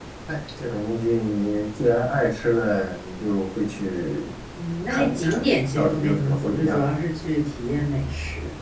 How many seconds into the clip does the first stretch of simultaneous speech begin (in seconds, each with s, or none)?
4.9 s